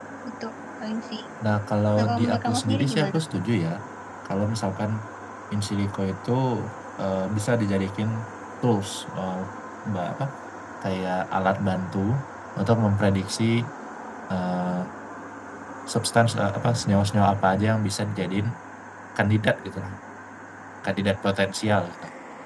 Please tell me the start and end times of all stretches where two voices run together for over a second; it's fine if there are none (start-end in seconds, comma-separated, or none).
2.0-3.2